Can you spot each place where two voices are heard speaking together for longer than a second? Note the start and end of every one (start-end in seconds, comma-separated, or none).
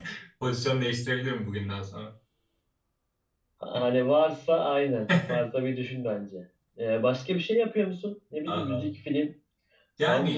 none